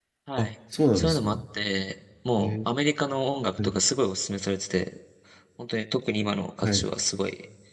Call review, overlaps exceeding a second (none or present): none